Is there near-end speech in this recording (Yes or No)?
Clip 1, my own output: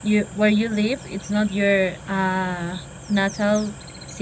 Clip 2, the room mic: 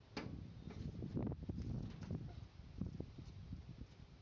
No